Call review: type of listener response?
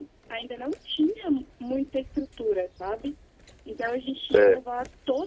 listening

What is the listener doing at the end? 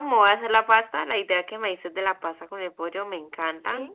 listening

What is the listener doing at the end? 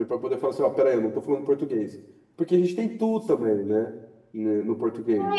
taking over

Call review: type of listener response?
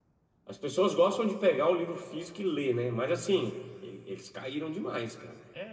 taking over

